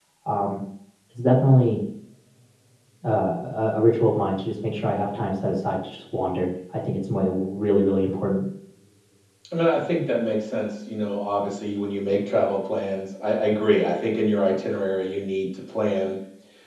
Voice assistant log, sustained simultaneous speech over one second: none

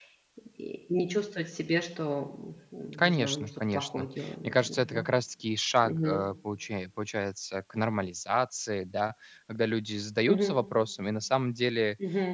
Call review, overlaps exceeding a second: present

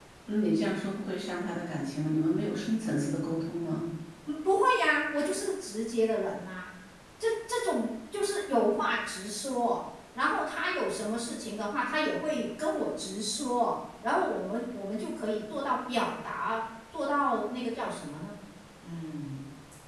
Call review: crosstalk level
none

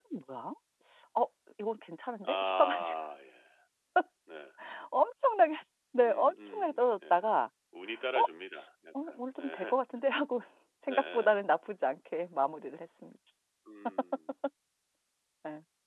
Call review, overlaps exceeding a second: present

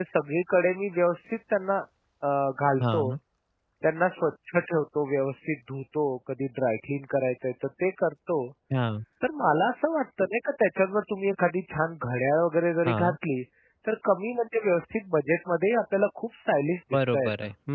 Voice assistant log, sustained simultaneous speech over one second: none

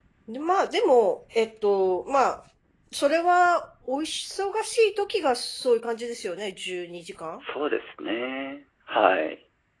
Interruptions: none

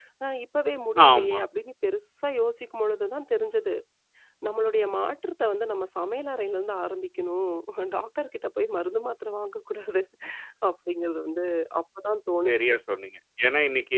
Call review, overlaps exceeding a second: none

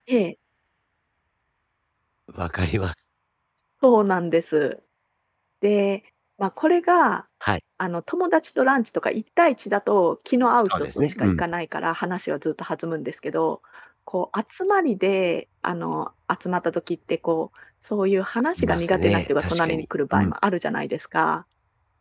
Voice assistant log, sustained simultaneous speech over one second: present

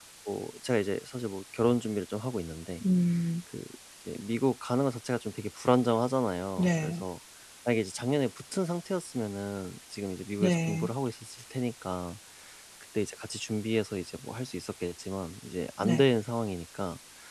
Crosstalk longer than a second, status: none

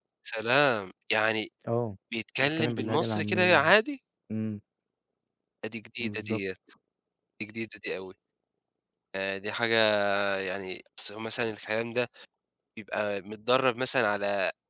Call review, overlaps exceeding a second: present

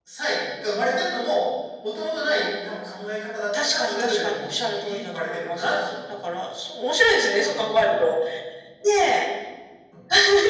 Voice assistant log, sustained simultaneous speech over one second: present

